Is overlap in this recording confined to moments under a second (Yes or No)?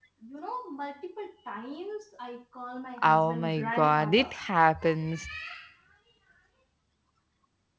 No